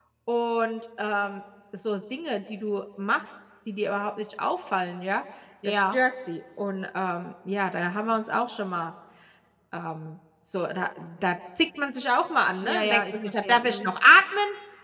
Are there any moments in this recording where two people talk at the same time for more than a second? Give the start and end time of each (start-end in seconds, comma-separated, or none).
12.6-13.9